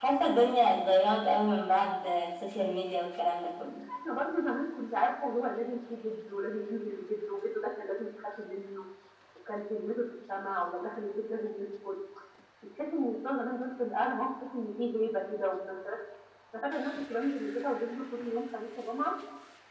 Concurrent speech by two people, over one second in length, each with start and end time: none

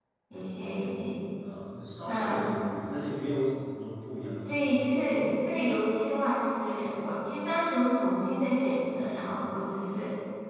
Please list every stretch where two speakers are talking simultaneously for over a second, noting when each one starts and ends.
none

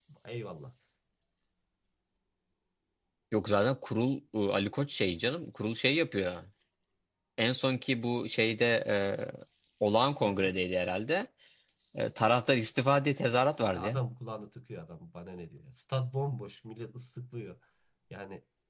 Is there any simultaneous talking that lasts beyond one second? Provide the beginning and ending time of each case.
none

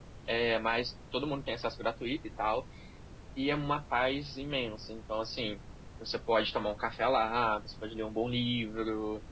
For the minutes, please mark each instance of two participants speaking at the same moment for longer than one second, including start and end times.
none

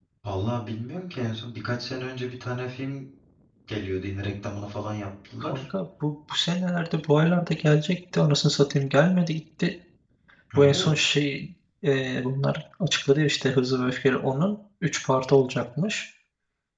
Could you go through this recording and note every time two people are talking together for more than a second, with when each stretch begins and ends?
none

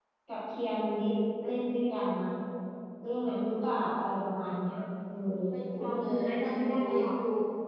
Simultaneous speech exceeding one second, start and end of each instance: 5.8-7.1

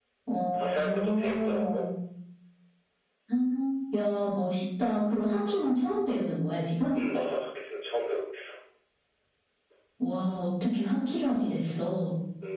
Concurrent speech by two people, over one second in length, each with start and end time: 0.6-1.8

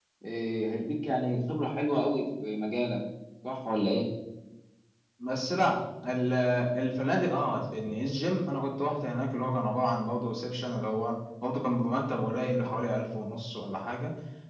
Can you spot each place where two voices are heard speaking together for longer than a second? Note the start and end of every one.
none

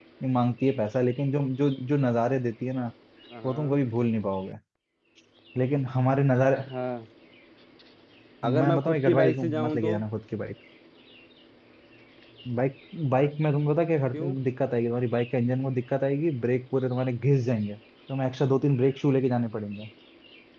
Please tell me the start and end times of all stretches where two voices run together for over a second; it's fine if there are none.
8.5-10.0

